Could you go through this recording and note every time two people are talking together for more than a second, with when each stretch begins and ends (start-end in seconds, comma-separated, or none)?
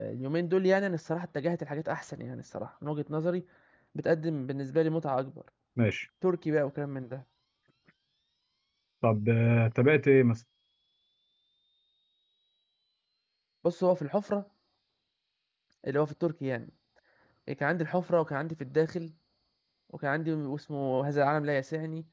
none